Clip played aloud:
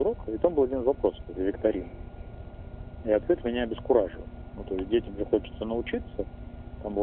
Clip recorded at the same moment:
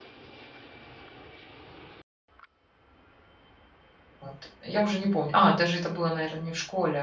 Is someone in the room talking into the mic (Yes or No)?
Yes